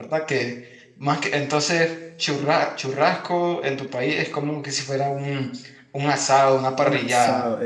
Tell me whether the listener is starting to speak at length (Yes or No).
Yes